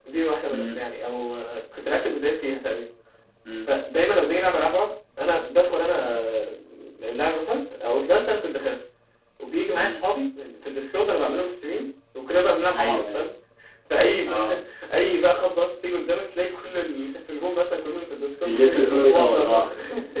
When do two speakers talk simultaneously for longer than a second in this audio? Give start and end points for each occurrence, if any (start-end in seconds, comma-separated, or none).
18.5-19.7